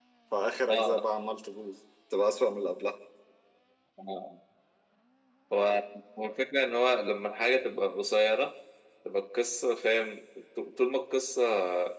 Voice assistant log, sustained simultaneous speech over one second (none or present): none